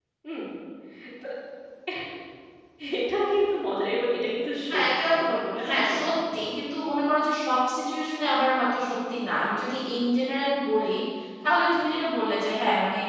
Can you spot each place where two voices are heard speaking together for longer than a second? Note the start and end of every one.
4.7-6.0

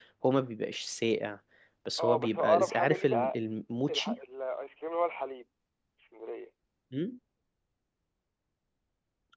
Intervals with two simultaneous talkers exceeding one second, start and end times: 2.0-3.4

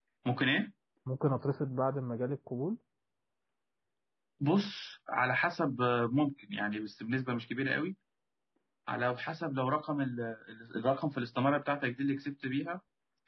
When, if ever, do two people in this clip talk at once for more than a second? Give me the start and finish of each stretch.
none

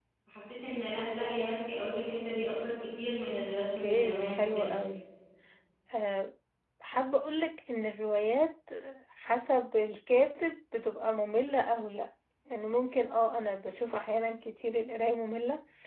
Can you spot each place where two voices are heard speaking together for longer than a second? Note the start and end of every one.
3.4-4.8

